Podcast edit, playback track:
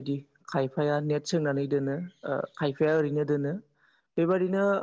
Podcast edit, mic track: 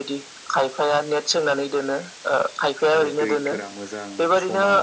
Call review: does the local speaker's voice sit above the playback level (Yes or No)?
No